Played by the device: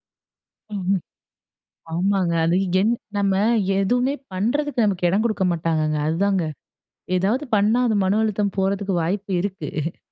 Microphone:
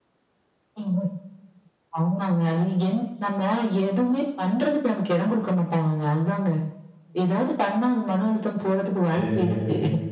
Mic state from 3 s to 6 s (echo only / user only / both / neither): echo only